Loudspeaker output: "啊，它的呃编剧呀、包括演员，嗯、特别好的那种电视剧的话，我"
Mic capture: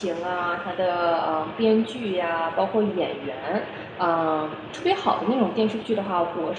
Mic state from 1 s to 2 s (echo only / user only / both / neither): echo only